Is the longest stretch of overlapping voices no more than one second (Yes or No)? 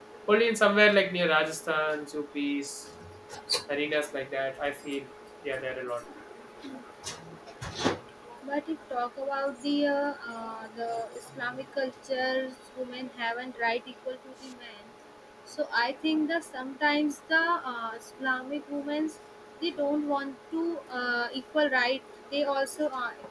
Yes